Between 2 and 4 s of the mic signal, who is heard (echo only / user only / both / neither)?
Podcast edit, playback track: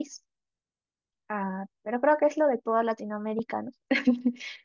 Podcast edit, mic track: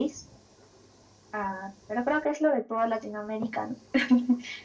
echo only